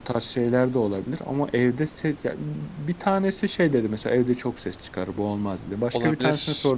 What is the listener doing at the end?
listening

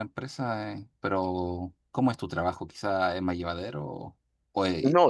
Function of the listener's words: taking over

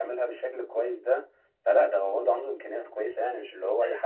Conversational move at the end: taking over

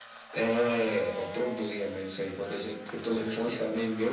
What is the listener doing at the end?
listening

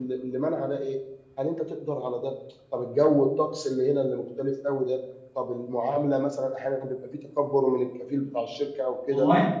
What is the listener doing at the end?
listening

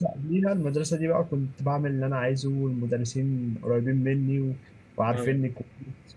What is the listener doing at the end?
listening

